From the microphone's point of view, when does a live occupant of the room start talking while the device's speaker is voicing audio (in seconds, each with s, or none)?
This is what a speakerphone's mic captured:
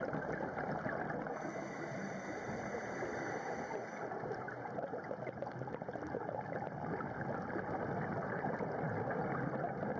none